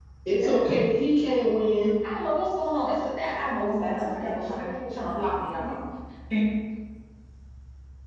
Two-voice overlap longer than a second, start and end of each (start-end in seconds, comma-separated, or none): 3.8-5.2